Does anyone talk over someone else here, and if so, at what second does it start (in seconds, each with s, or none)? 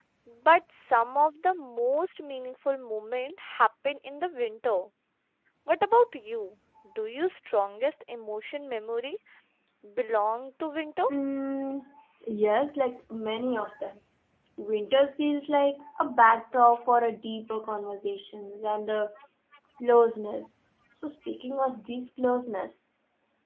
none